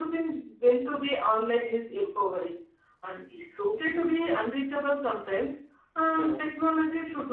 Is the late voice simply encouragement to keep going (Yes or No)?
Yes